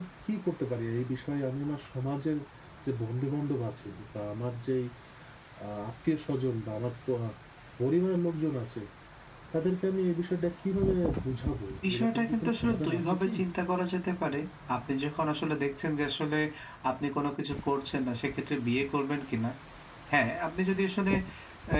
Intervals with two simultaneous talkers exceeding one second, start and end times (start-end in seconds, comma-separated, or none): 11.9-13.3